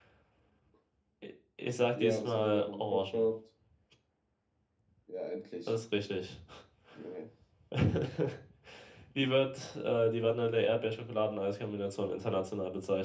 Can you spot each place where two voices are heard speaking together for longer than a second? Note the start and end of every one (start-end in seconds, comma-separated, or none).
1.9-3.2